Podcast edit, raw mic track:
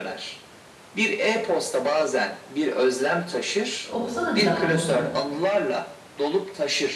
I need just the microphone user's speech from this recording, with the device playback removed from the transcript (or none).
Okusana bir daha onu tekrar.